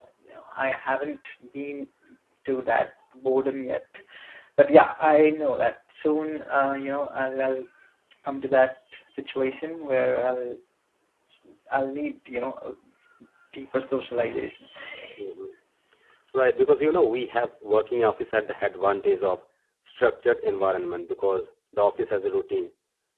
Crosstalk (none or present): none